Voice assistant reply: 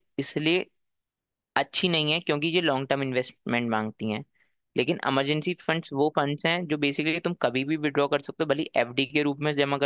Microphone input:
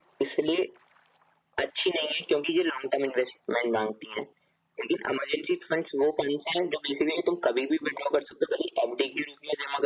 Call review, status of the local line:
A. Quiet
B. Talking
A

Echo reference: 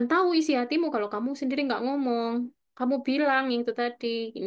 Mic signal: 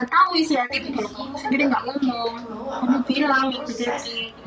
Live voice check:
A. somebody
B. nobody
A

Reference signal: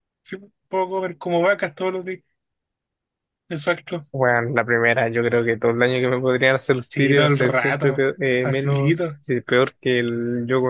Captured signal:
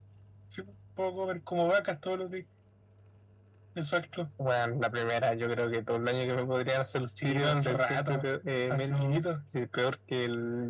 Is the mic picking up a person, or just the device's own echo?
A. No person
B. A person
A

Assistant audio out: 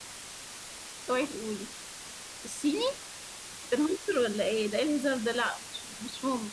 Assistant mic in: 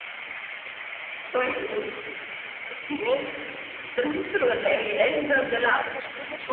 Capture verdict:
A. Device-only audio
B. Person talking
B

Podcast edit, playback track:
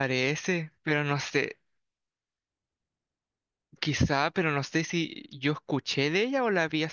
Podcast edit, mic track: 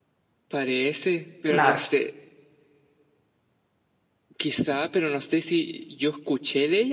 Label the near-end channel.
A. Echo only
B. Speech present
B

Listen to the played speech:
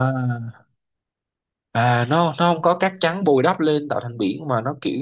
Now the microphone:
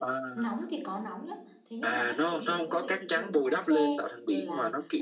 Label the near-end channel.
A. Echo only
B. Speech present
B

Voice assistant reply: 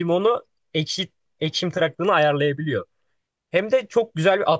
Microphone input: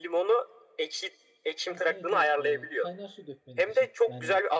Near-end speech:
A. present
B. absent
A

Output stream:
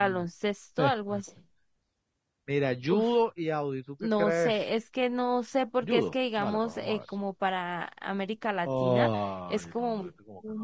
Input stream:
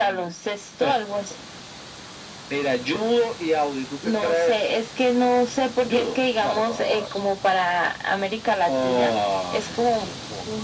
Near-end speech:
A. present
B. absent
B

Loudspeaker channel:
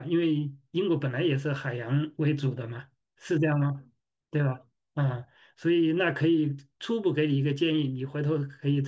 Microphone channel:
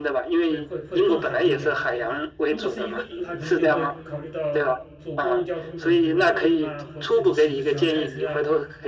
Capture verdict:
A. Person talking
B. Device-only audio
A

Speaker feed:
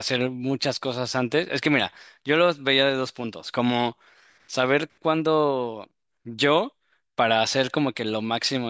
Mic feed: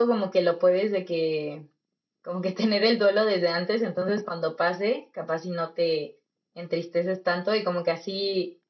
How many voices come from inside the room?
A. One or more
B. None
A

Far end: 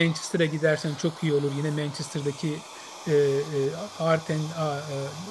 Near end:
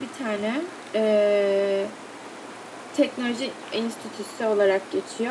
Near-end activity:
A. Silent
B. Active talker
B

